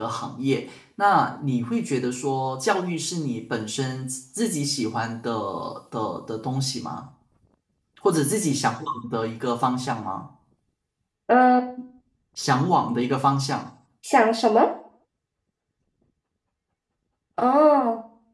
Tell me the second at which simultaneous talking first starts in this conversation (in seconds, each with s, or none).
none